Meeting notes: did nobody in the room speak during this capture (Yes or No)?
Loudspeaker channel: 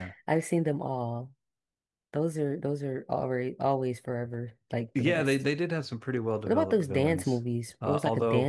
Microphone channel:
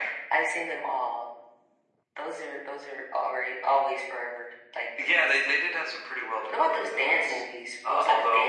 Yes